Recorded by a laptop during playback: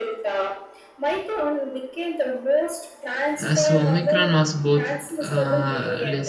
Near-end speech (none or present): present